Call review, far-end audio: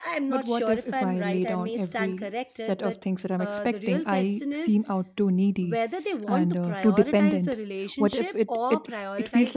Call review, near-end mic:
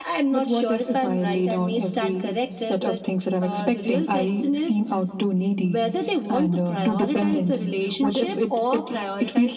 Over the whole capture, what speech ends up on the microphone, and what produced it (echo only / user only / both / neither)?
echo only